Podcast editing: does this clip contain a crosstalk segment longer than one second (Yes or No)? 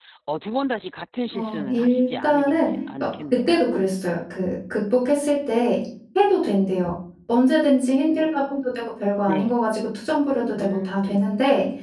Yes